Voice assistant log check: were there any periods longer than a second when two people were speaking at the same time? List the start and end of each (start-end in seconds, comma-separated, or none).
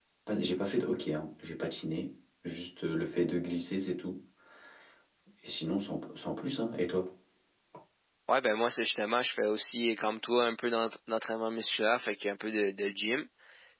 none